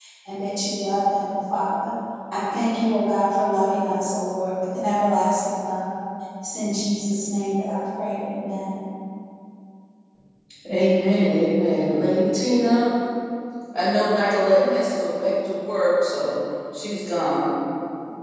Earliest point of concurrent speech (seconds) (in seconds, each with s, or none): none